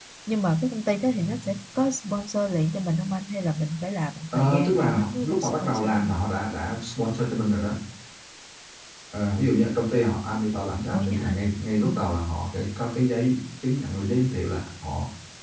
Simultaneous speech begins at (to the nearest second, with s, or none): 4 s